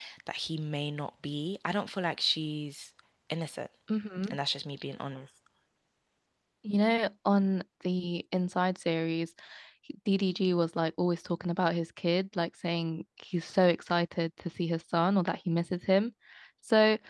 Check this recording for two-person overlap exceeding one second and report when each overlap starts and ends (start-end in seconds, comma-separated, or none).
none